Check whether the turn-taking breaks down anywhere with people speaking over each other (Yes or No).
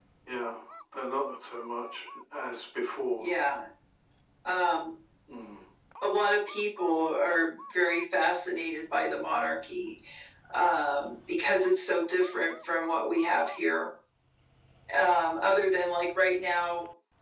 No